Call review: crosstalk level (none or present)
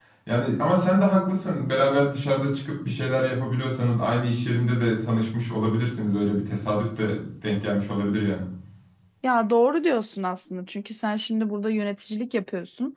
none